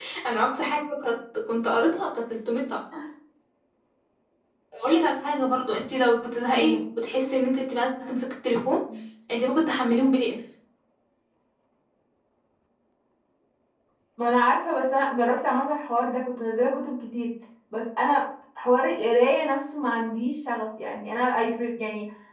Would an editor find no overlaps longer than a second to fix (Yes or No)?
Yes